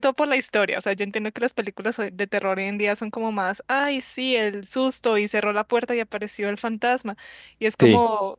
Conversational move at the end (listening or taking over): listening